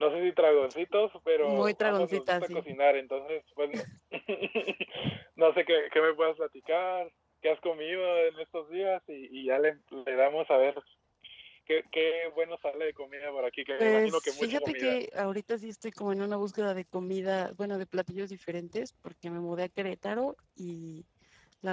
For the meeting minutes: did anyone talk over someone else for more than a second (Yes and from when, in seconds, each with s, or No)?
Yes, from 1.4 s